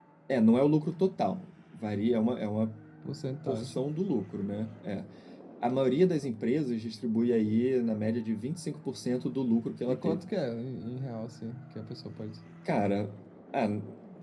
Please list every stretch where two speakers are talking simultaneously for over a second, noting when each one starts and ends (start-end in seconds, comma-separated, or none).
none